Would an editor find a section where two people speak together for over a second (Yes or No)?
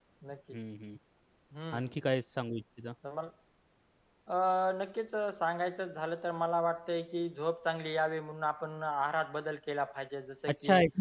No